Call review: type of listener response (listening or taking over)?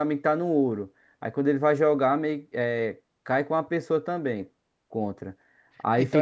listening